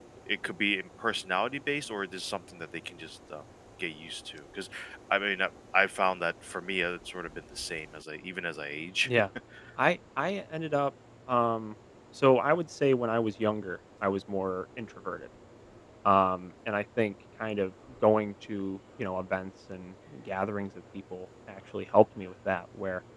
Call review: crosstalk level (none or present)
none